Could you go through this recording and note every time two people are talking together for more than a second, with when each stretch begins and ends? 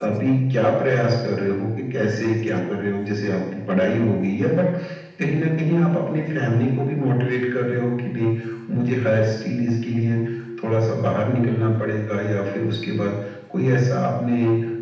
none

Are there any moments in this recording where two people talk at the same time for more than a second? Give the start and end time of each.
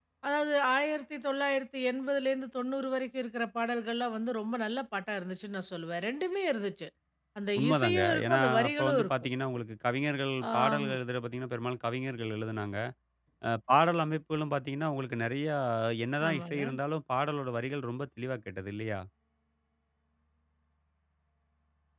7.6-9.1

